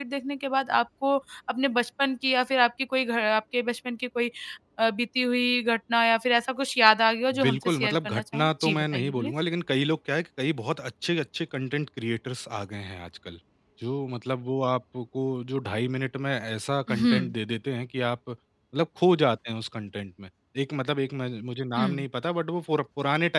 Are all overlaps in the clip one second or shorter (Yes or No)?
No